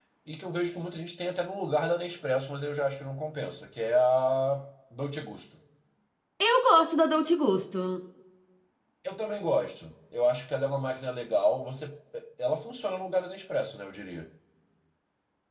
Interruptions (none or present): none